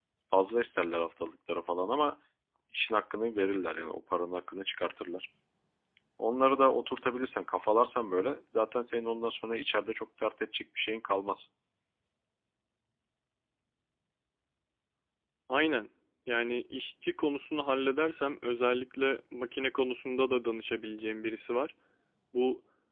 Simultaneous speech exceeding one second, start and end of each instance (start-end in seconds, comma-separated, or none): none